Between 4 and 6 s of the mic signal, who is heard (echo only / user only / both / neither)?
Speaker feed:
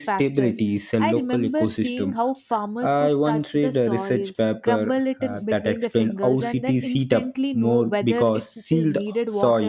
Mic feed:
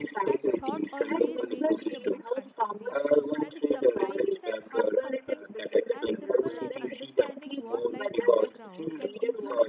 both